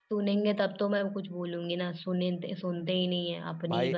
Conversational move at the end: taking over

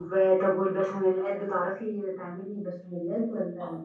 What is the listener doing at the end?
taking over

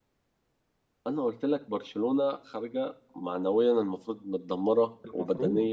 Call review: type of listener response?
listening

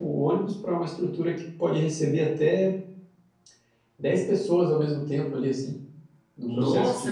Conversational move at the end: taking over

